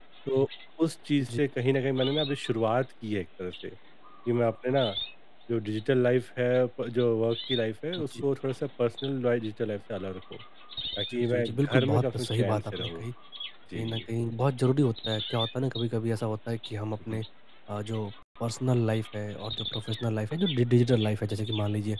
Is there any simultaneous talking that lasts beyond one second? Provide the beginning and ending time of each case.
11.1-13.1

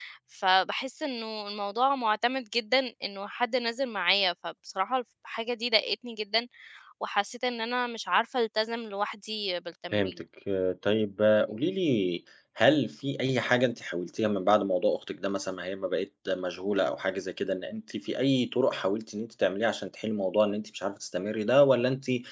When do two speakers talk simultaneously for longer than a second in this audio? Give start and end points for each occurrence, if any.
none

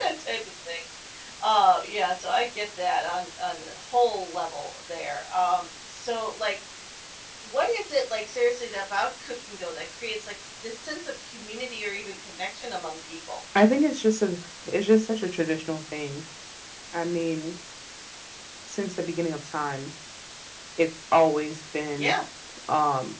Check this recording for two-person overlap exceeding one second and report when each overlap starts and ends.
none

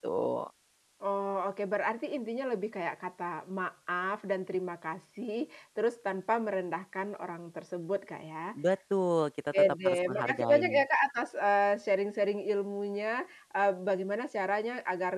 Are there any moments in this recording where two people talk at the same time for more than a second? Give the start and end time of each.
9.5-10.8

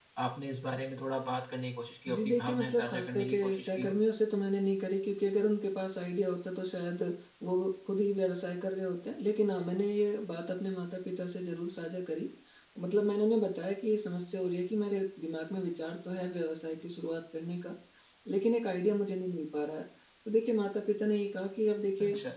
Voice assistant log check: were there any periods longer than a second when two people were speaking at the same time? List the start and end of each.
2.1-3.9

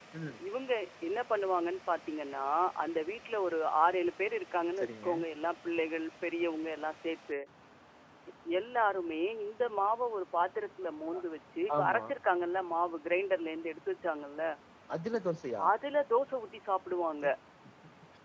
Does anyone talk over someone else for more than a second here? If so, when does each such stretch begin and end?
none

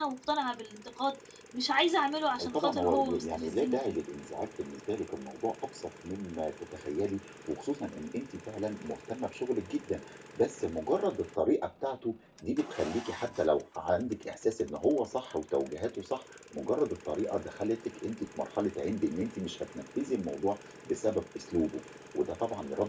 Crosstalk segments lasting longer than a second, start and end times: 2.4-4.0

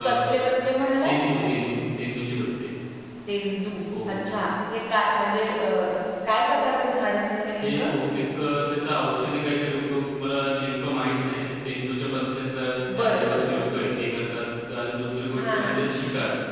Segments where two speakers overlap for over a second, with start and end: none

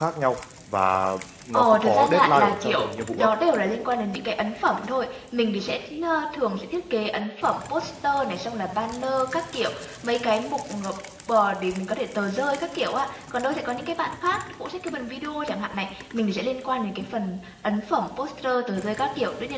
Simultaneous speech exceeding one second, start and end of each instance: 1.5-3.3

